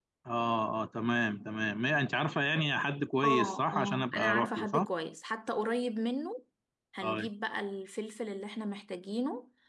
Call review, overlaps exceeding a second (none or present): present